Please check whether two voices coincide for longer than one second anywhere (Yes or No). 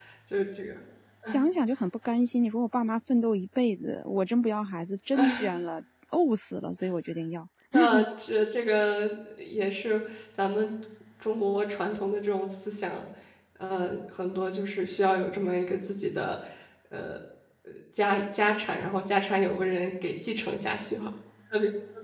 No